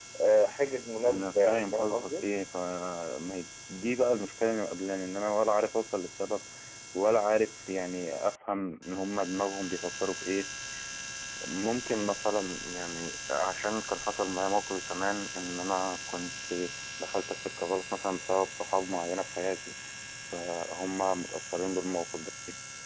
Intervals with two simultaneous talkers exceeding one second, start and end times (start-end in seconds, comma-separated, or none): 1.1-2.3